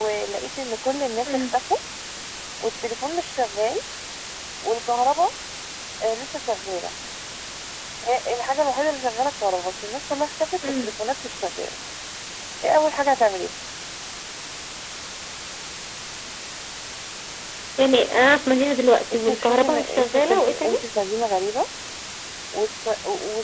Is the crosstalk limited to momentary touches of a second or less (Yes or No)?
No